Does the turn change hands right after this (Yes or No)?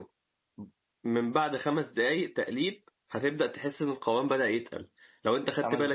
No